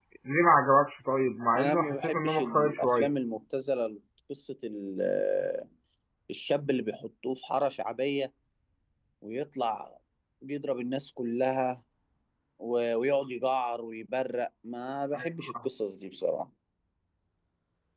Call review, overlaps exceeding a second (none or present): present